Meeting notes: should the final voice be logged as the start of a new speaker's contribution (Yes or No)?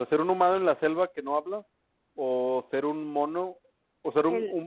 No